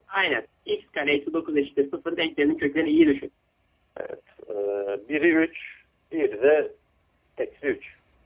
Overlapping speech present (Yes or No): No